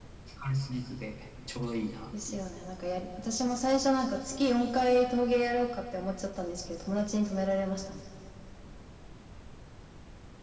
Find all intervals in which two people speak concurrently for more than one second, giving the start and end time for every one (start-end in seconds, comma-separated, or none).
none